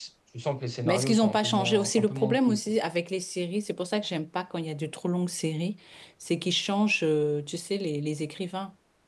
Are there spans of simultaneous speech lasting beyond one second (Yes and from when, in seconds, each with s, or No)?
Yes, from 0.8 s